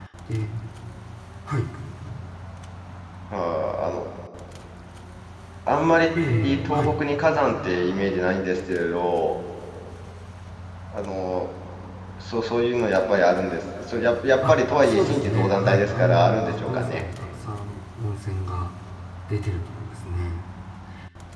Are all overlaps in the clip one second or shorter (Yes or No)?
No